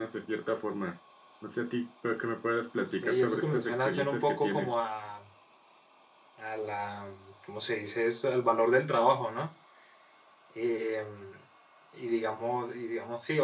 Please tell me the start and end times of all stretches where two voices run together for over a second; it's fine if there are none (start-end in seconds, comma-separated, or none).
3.0-4.8